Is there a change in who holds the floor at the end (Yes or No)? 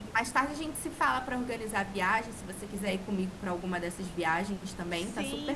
Yes